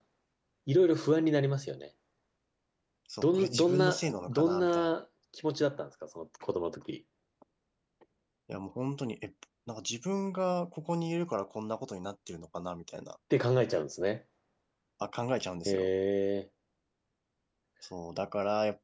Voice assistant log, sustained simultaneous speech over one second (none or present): present